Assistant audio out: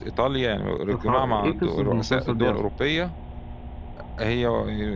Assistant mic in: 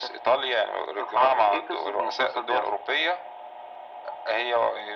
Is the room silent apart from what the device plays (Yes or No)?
Yes